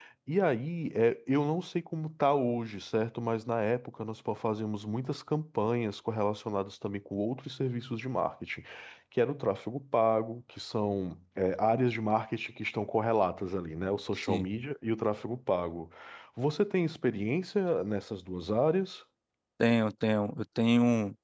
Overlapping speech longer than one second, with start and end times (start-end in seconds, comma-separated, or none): none